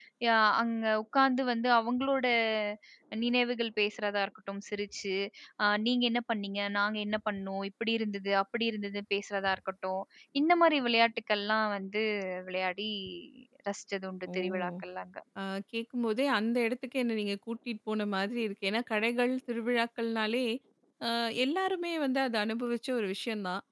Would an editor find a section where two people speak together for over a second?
No

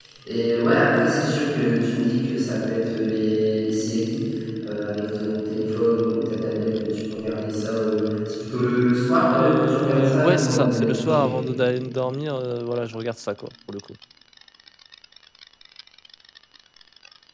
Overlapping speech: Yes, from 9.3 s

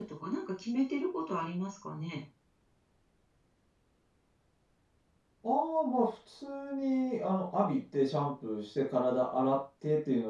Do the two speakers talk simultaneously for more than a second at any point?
No

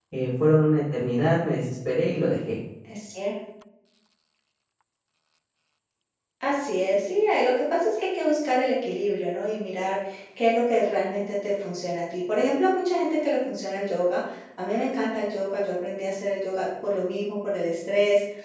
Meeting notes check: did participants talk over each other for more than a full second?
No

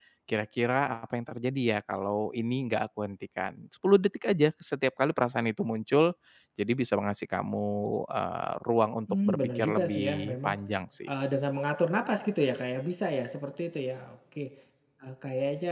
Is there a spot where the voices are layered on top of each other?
Yes, from 9.1 s

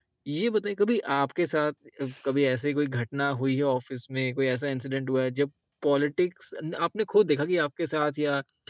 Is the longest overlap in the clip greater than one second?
No

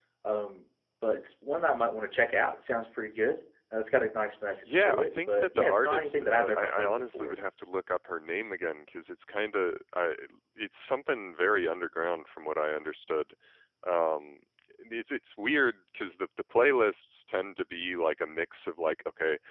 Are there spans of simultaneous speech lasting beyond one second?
Yes, from 4.7 s

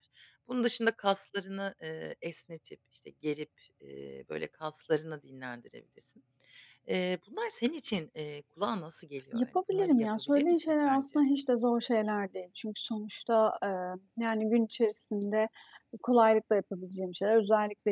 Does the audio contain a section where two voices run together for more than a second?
Yes, from 9.3 s

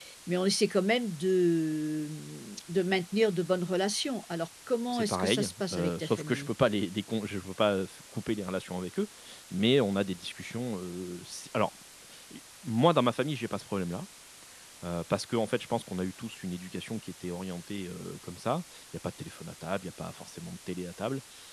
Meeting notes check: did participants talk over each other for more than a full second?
Yes, from 4.9 s

